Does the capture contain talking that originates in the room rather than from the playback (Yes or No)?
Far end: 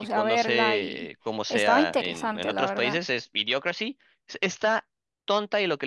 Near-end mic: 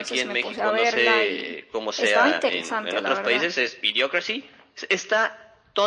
No